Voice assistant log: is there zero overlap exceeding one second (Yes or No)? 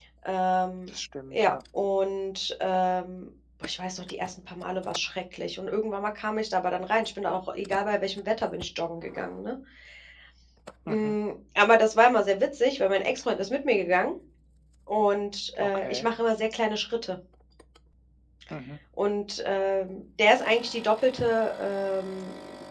Yes